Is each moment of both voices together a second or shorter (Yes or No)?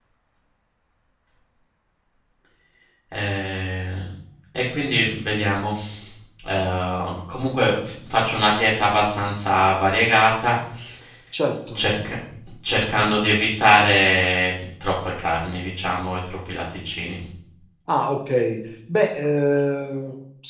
Yes